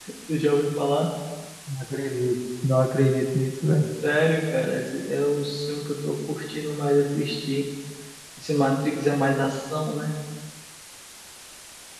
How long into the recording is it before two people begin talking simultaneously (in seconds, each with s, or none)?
none